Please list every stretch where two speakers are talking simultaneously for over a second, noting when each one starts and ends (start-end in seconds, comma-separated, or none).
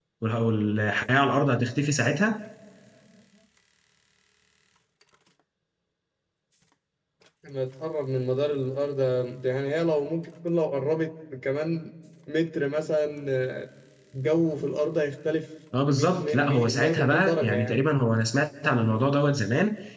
15.9-17.8